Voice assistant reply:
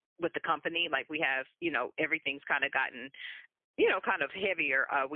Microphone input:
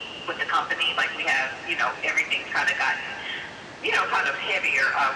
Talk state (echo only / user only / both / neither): echo only